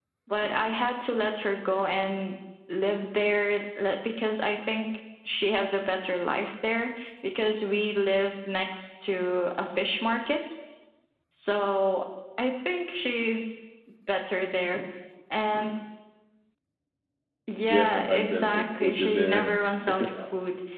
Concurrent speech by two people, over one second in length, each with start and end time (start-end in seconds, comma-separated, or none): 17.7-19.6